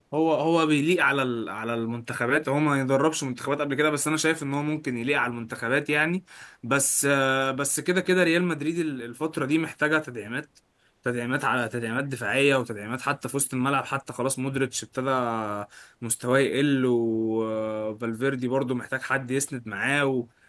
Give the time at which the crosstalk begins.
none

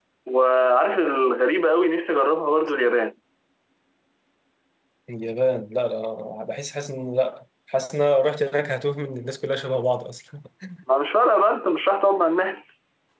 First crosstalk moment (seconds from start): none

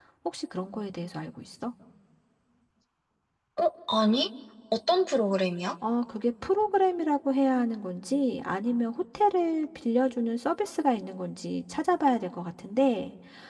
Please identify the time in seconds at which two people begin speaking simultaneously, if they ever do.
none

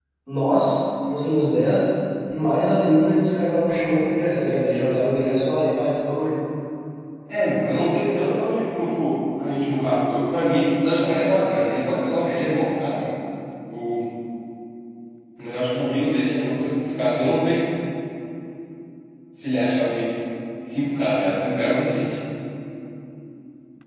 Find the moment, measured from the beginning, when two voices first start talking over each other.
none

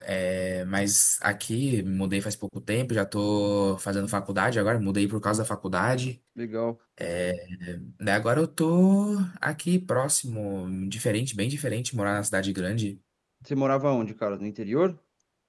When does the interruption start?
none

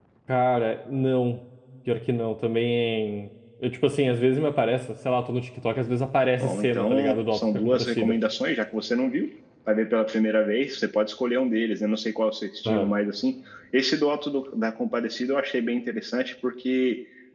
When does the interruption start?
6.4 s

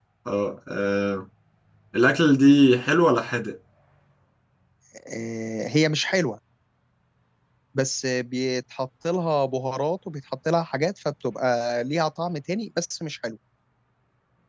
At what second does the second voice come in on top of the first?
none

